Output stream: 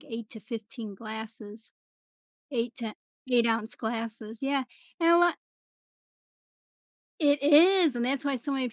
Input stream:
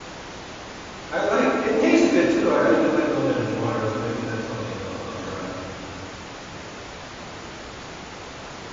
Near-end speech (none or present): present